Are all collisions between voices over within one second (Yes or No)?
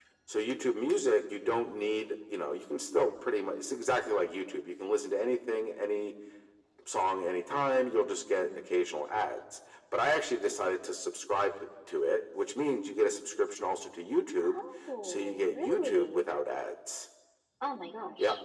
No